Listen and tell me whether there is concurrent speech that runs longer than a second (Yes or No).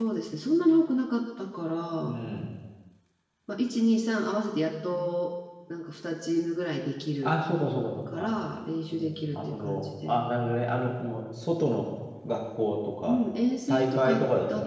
Yes